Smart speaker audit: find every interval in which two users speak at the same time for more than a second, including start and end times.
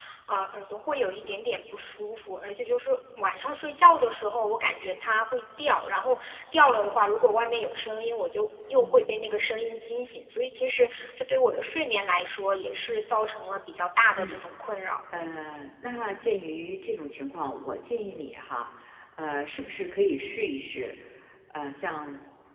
none

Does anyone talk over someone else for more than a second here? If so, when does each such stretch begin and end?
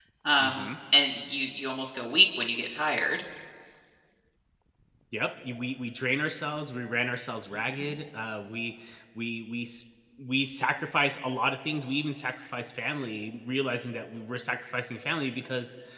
none

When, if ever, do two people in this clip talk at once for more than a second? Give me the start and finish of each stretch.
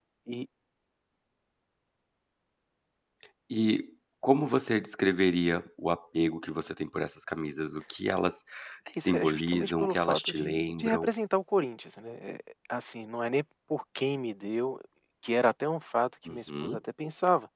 8.9-11.1

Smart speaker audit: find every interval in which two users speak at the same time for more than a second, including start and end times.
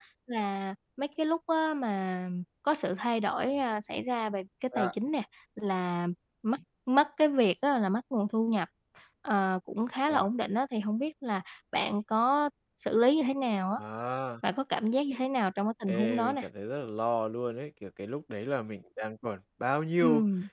none

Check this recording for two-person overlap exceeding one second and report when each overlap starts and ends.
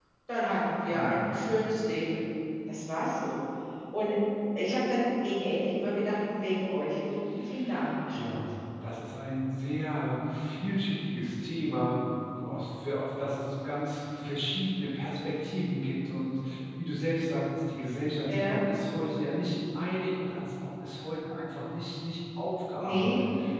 none

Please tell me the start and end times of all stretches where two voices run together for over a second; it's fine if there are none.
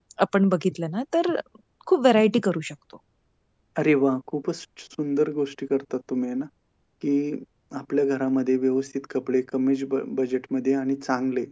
none

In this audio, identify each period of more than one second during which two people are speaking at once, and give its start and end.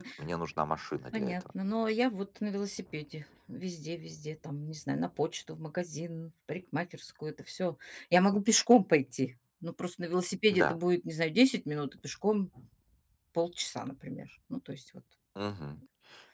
none

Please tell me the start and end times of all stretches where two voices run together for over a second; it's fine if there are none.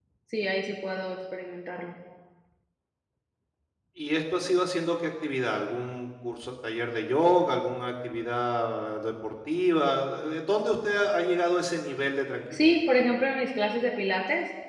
none

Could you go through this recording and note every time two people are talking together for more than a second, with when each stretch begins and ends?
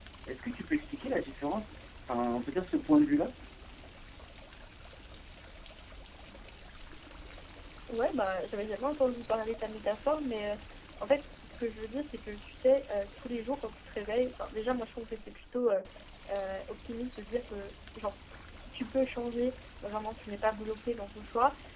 none

